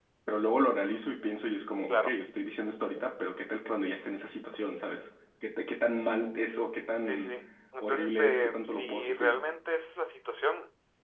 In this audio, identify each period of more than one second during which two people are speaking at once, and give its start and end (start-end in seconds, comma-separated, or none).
7.8-9.4